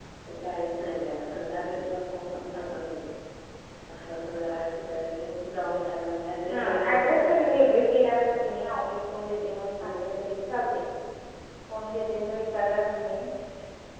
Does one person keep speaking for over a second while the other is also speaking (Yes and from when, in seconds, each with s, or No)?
Yes, from 6.5 s